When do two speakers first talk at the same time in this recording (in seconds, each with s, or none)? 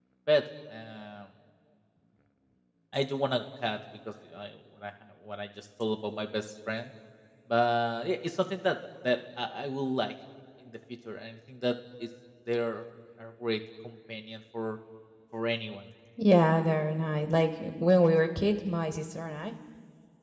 none